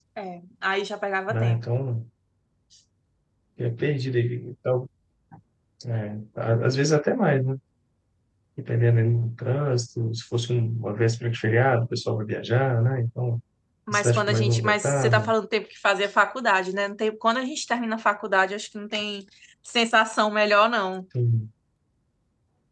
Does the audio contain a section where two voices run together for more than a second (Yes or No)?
Yes